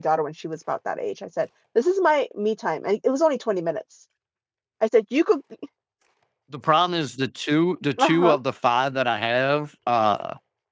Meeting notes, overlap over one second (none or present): none